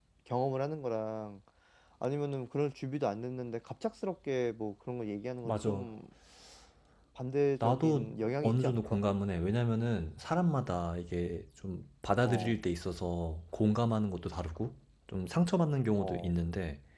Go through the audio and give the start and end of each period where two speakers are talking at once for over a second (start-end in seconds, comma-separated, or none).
7.6-9.0